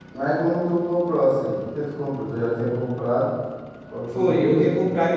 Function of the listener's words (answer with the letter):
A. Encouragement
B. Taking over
B